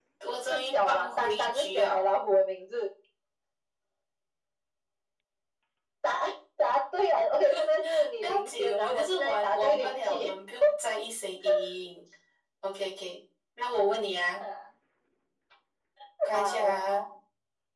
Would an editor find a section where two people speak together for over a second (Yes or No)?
Yes